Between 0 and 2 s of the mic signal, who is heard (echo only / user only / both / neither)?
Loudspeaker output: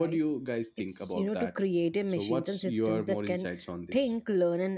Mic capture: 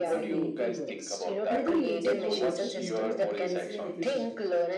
both